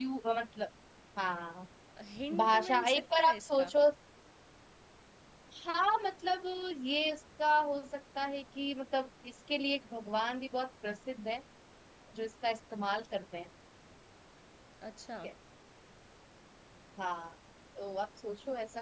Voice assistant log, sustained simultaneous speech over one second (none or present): present